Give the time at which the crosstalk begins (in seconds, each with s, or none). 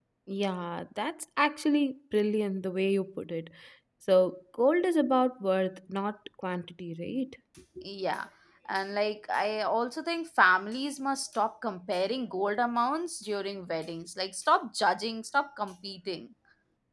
none